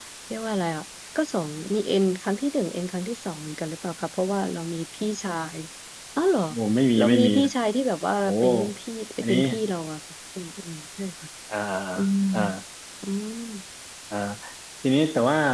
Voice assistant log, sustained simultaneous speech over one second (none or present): none